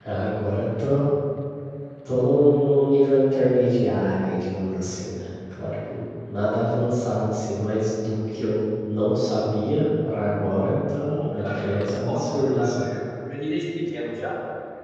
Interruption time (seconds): 11 s

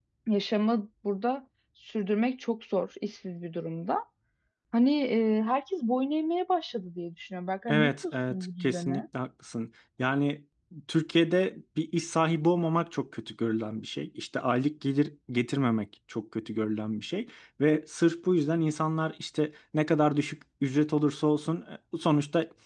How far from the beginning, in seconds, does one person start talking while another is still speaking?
8 s

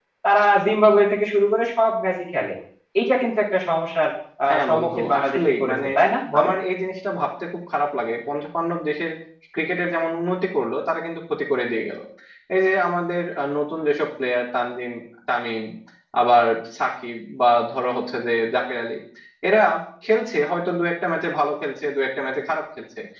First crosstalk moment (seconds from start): 4 s

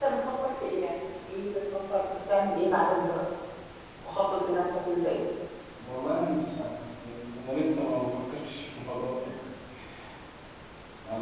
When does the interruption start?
none

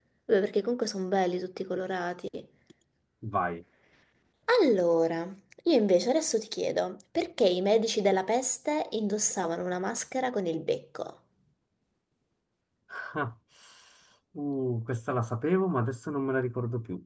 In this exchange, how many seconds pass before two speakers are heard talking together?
none

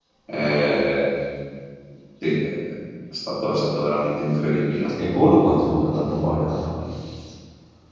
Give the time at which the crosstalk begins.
none

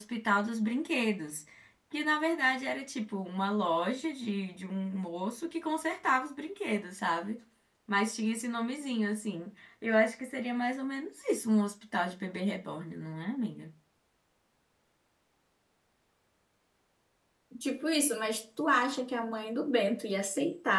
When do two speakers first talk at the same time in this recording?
none

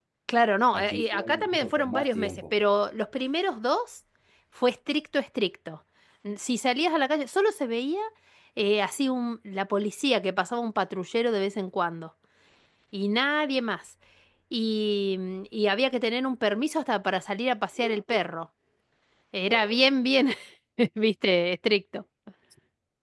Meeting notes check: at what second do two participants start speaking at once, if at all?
1 s

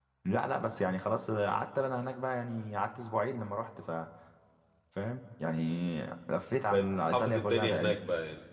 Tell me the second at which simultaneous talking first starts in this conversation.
7 s

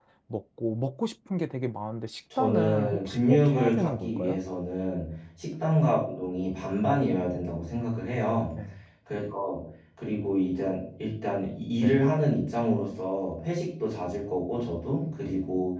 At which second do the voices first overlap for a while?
2 s

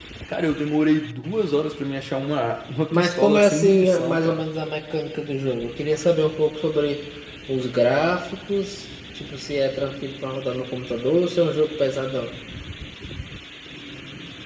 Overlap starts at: 3 s

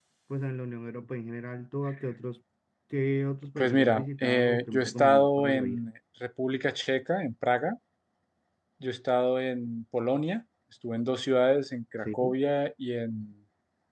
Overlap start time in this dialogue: 4 s

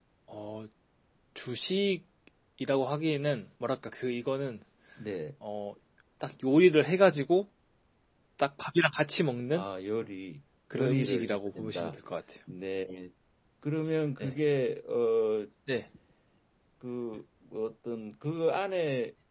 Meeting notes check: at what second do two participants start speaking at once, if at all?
11 s

